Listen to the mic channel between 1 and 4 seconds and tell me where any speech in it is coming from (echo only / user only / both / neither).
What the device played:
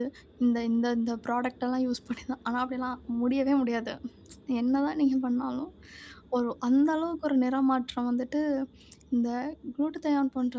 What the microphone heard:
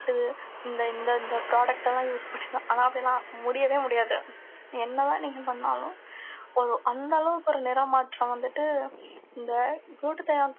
echo only